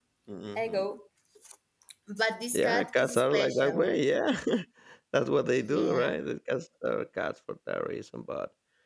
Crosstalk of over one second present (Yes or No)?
Yes